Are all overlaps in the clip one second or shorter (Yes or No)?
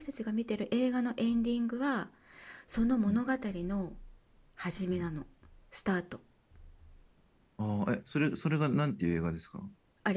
Yes